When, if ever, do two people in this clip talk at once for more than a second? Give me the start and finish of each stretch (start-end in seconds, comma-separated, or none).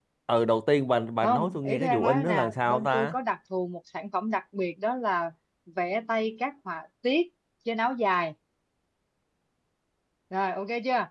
1.2-3.1